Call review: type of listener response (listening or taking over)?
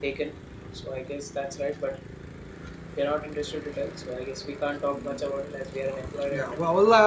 taking over